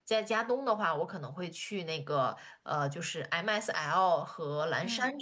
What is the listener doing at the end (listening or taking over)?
listening